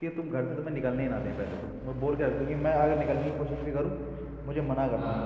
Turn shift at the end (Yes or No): No